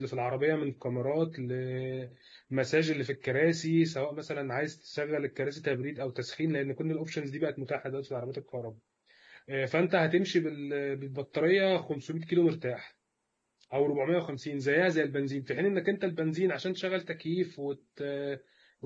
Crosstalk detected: No

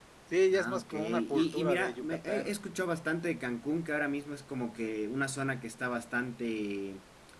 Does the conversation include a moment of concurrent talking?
Yes, from 0.5 s

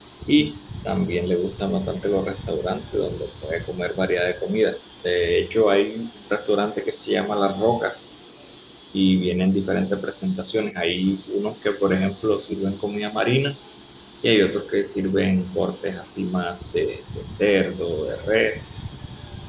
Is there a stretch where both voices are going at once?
No

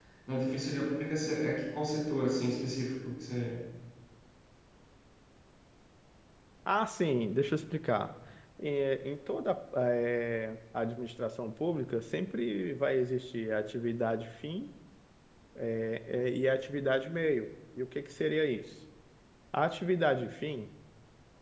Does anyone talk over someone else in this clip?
No

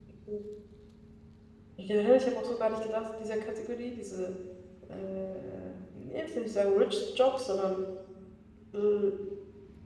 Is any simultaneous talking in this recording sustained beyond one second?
No

